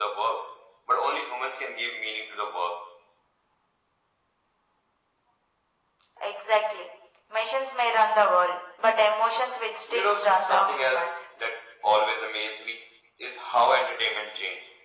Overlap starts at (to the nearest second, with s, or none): 10 s